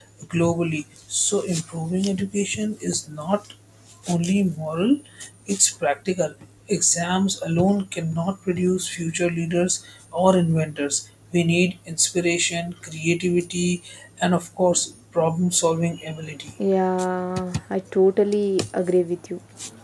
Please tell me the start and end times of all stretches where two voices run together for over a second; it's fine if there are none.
none

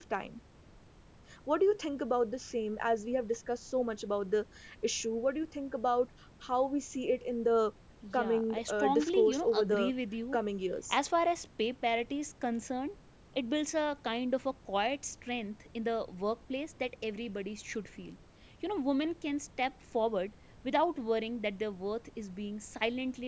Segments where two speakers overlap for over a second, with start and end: 8.1-9.9

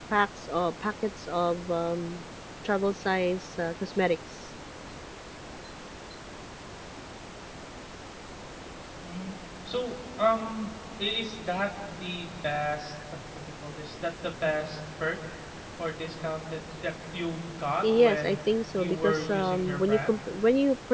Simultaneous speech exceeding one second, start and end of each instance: 18.8-20.2

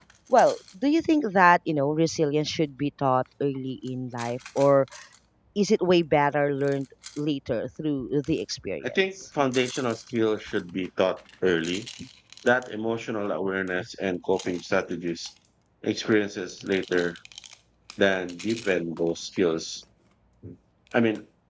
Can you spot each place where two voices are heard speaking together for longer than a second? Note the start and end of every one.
none

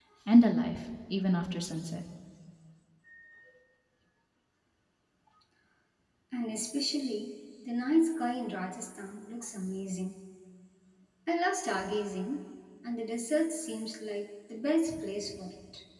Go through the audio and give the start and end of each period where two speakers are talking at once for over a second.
none

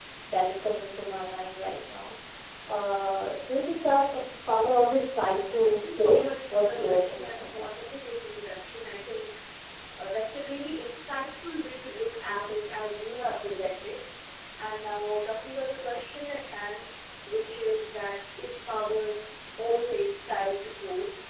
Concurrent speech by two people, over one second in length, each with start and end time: 5.6-7.7

